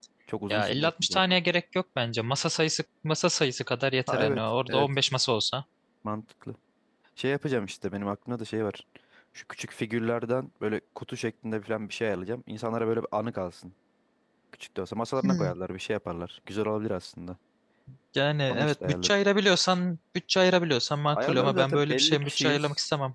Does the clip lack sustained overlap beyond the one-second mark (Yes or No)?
No